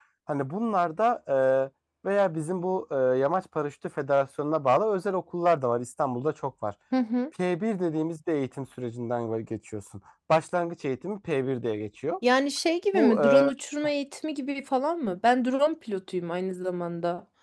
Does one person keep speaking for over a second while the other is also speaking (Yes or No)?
No